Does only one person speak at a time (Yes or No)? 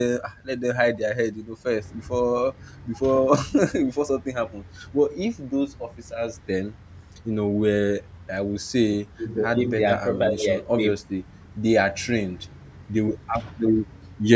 No